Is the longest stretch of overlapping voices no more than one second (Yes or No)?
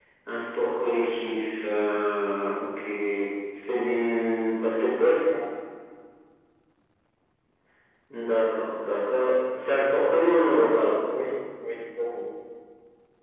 Yes